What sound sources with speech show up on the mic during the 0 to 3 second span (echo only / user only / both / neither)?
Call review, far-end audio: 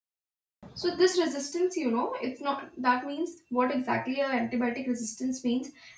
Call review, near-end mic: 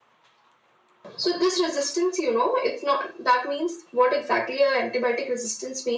echo only